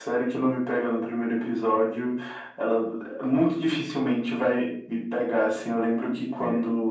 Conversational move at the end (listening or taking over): listening